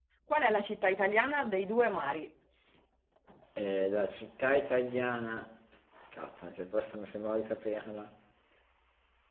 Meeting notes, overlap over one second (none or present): none